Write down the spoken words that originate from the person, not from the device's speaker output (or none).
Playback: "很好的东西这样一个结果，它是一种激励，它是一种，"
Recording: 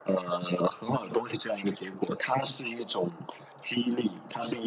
none